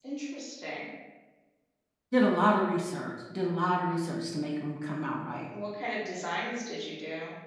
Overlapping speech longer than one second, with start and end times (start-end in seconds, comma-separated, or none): none